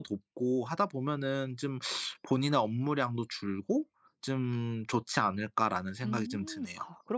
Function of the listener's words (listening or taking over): taking over